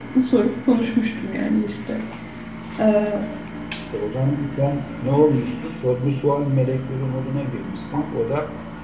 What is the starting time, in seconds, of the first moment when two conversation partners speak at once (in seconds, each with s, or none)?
none